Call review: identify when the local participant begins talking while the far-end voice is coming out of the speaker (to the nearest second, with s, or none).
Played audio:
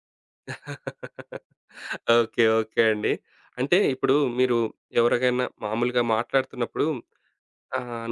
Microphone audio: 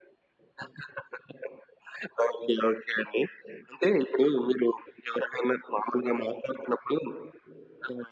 none